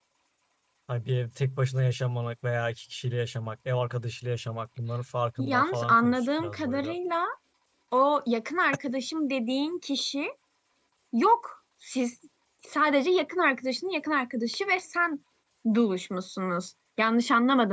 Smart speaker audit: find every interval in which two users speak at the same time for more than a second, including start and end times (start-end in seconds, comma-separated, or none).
5.4-6.9